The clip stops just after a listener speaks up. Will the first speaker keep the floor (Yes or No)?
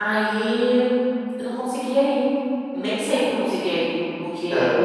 Yes